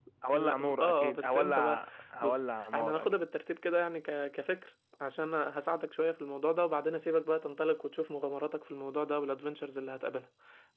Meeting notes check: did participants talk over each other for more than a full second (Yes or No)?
Yes